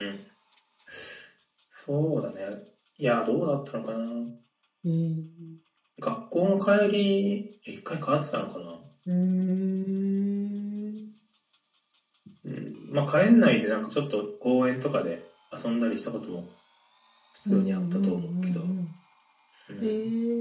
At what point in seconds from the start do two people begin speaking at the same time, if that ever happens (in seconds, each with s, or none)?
17.4 s